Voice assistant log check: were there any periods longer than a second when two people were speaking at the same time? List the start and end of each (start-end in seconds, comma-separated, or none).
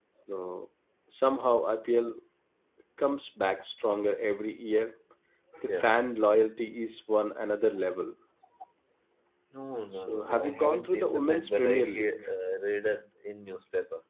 9.9-12.1